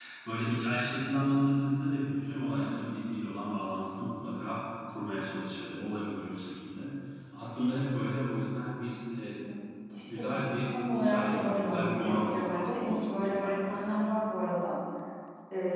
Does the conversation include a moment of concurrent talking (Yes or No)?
Yes